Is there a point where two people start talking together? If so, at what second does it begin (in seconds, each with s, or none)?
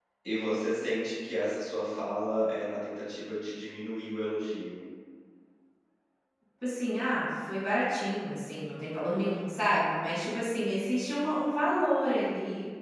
none